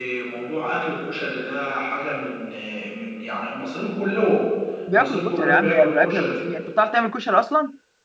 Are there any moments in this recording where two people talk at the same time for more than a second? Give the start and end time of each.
4.9-6.3

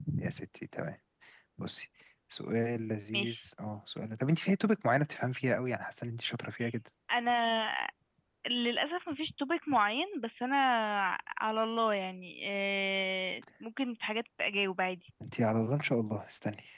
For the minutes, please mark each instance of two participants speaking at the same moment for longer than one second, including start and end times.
none

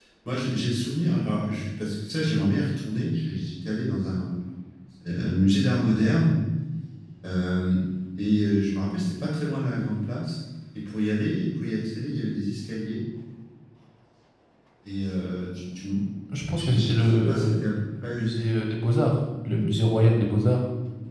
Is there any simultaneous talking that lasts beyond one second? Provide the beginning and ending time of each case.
16.6-18.3

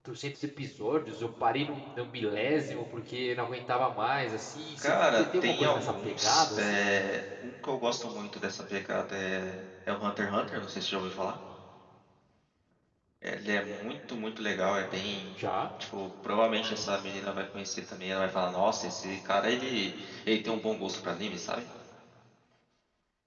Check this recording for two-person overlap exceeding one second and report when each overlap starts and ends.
4.8-6.8

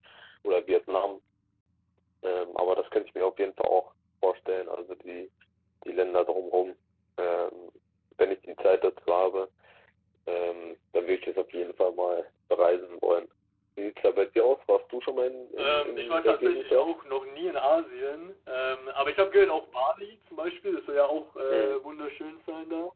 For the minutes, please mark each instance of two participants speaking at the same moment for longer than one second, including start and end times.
15.6-16.9

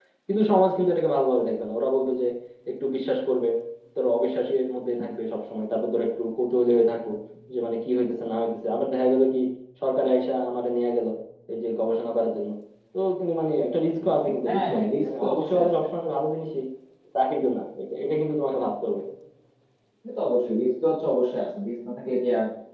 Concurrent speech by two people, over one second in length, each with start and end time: 14.5-15.8

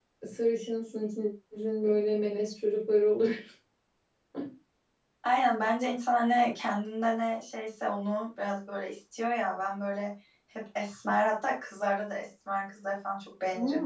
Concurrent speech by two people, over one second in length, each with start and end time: none

